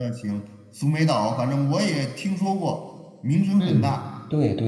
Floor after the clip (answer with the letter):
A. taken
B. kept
A